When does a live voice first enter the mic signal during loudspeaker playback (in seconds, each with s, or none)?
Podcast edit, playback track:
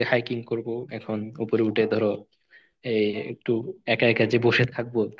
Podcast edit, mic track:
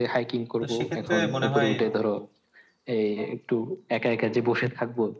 0.6 s